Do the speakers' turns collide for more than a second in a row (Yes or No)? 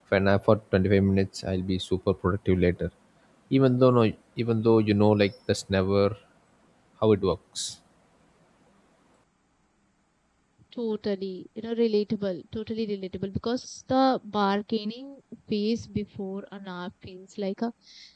No